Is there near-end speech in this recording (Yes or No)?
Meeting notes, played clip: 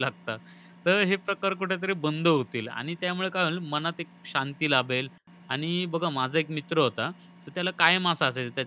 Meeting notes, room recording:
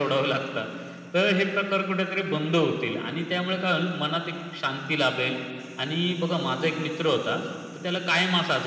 No